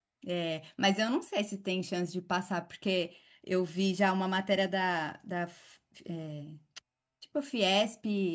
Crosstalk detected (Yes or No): No